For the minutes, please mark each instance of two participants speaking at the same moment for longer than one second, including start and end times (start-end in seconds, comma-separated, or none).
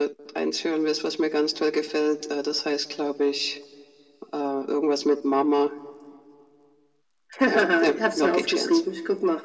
7.5-8.8